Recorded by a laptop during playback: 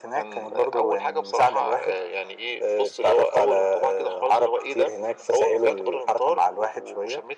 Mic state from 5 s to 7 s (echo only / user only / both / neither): echo only